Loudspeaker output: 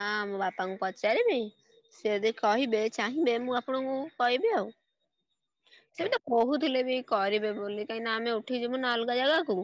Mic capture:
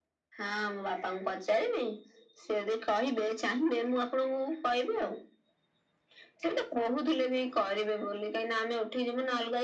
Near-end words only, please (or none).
none